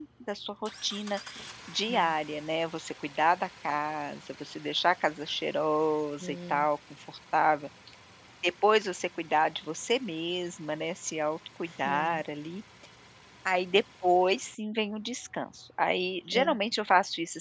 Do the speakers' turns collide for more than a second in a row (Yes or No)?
No